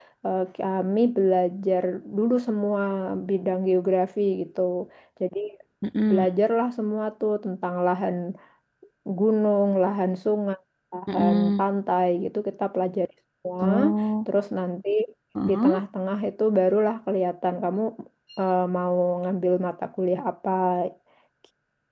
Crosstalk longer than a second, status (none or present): none